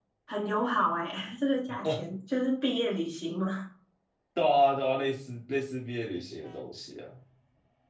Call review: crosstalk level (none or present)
none